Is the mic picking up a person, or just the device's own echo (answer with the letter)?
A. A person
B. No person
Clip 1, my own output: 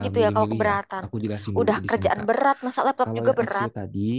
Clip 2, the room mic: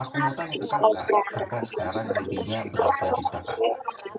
A